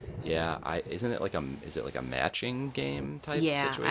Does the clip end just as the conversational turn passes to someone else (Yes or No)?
Yes